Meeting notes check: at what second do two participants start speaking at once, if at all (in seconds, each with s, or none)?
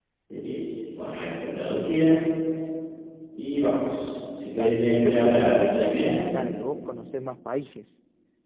4.6 s